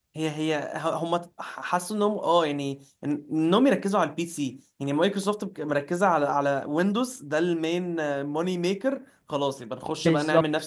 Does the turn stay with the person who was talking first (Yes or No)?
Yes